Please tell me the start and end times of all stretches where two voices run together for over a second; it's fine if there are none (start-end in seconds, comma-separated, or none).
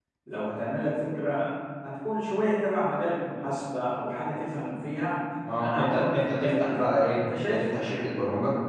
5.6-7.7